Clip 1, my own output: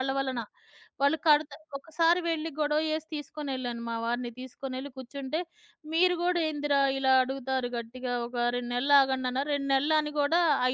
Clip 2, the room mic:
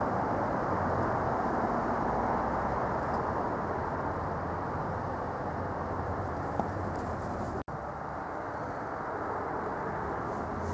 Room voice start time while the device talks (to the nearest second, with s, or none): none